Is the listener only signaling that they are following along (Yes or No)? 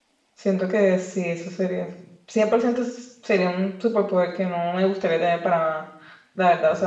Yes